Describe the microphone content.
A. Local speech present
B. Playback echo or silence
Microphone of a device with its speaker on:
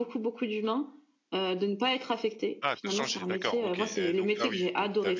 A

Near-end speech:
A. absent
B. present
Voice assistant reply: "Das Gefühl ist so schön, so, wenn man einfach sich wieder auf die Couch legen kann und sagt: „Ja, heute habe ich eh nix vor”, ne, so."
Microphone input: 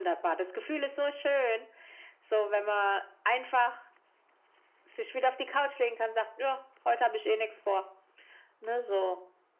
A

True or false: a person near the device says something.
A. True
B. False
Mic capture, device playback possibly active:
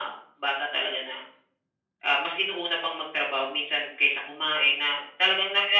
B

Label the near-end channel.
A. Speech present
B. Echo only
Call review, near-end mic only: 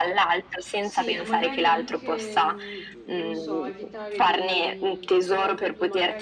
A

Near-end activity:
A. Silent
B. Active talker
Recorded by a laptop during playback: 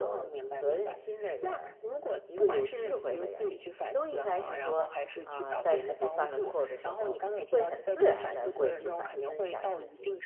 B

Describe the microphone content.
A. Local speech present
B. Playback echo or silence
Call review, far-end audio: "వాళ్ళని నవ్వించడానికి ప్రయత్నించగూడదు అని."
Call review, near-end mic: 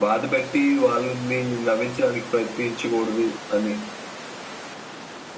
B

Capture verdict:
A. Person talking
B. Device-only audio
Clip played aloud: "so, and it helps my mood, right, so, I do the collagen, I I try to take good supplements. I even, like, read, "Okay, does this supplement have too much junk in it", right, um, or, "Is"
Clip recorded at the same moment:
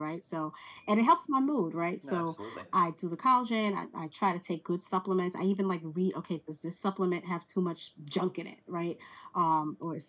A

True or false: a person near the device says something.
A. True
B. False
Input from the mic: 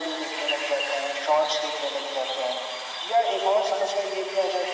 B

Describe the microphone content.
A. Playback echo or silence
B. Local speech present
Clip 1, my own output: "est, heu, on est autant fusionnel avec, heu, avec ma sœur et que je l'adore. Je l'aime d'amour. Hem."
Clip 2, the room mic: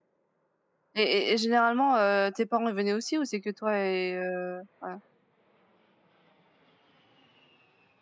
B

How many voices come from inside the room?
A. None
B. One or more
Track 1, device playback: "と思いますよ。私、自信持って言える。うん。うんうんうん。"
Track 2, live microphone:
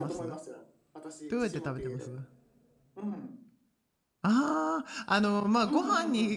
B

